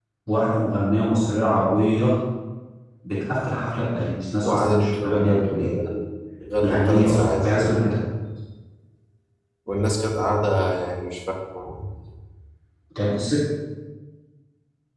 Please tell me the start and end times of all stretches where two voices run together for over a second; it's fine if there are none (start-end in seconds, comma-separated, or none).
4.4-5.7, 6.6-7.9